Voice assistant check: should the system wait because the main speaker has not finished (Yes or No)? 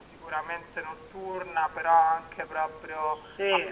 Yes